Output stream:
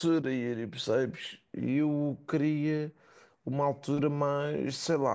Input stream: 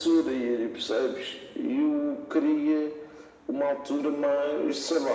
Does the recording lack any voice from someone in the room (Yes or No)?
Yes